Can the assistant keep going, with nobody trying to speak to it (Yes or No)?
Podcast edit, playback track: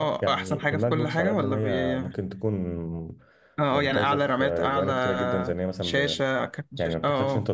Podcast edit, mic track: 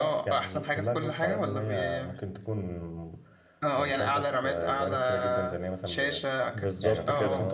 No